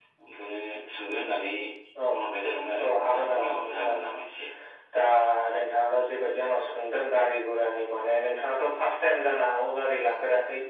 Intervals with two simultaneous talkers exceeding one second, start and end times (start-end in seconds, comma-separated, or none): 2.8-4.1